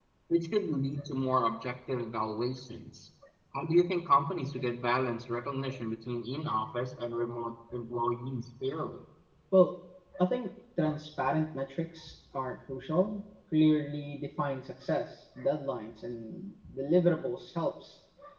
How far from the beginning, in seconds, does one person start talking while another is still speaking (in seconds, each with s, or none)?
none